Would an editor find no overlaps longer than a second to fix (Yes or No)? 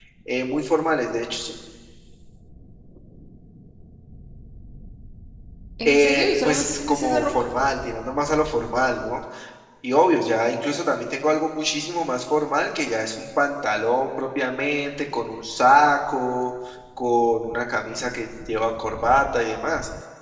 No